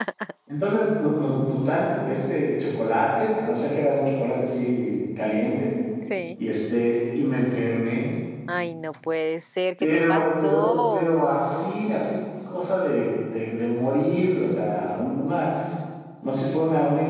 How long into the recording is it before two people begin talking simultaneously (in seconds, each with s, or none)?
9.8 s